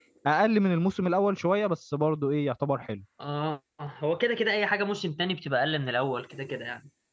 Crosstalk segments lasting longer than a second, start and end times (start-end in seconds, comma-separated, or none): none